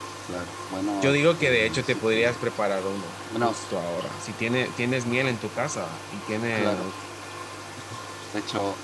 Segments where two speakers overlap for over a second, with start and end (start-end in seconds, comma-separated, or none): 1.0-2.4